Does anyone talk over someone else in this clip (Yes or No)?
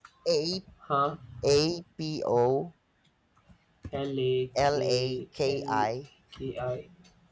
Yes